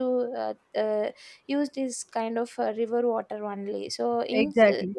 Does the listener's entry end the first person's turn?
No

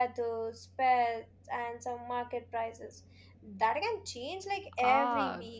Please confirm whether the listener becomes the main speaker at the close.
Yes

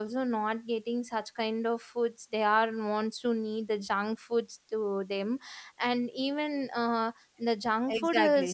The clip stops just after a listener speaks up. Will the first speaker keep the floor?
No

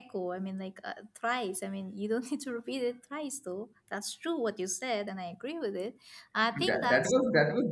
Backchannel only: No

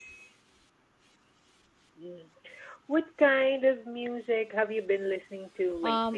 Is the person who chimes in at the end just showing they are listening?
No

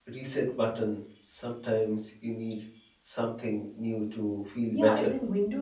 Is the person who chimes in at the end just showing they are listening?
No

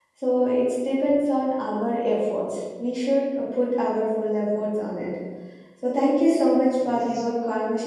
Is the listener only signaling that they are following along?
Yes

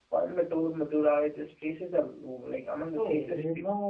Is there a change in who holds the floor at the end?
Yes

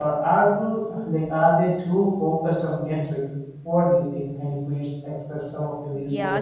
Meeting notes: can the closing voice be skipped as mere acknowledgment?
No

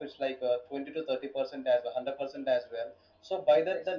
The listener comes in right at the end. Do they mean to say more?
No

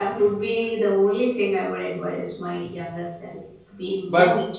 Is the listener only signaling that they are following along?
Yes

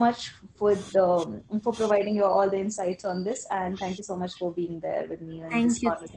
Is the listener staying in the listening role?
No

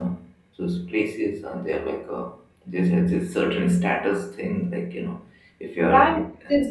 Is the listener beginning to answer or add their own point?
Yes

